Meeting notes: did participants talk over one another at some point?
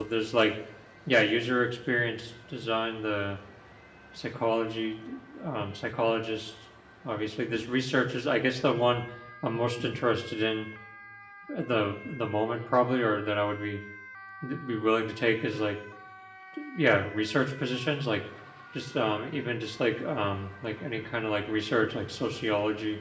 No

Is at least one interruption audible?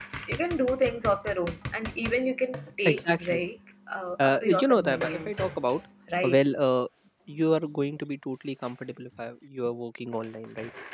Yes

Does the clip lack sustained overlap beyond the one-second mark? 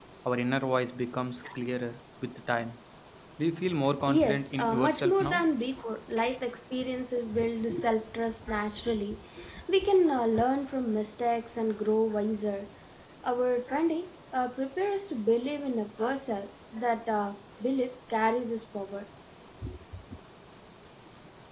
No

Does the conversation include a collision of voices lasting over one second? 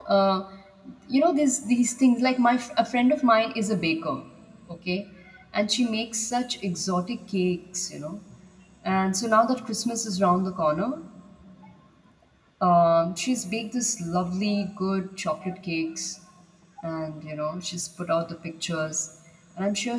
No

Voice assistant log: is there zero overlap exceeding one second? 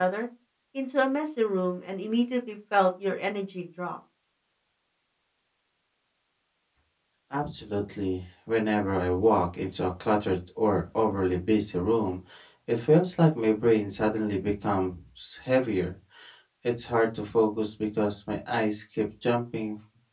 Yes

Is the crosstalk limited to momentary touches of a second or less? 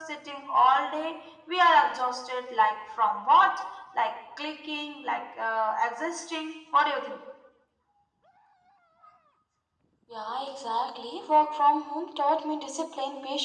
Yes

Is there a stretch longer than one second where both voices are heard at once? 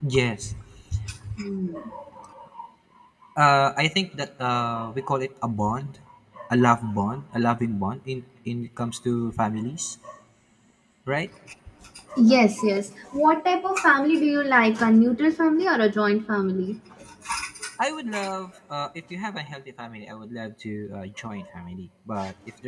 No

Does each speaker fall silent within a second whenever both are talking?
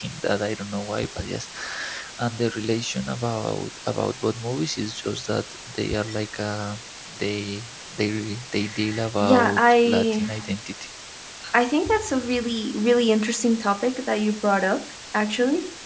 No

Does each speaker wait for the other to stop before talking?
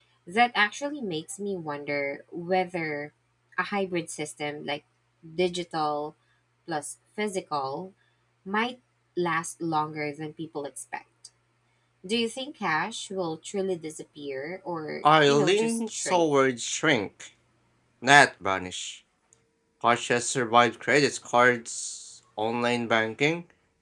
No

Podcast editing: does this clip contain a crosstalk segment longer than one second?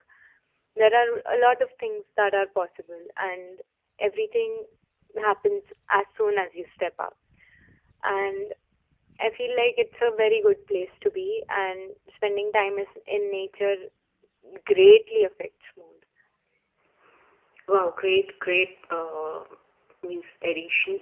No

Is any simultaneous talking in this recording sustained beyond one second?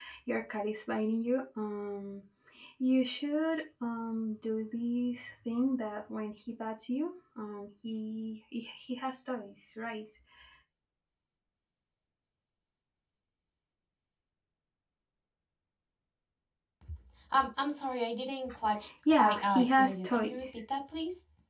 Yes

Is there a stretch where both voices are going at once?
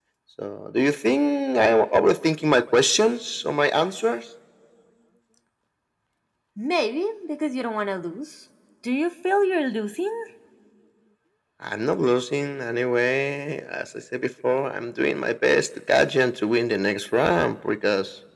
No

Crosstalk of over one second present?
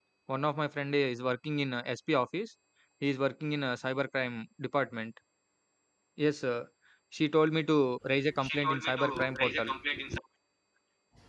Yes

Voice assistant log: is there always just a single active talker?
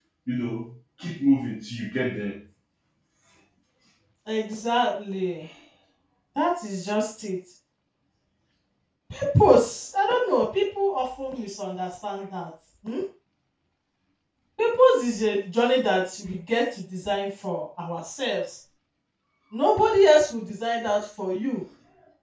Yes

